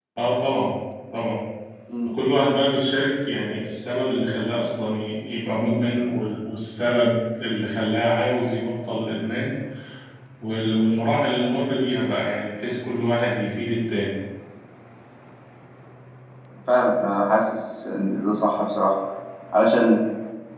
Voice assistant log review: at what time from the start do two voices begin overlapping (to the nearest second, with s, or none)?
none